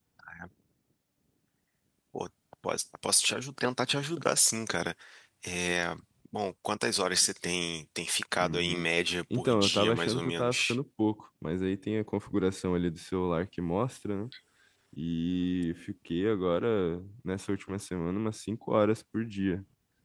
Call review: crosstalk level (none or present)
present